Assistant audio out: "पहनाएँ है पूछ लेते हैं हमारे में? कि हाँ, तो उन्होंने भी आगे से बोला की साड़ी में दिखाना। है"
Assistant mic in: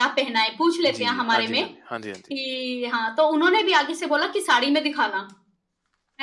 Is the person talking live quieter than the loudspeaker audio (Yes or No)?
Yes